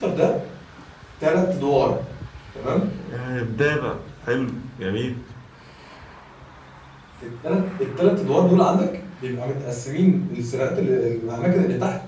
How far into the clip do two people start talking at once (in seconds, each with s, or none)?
none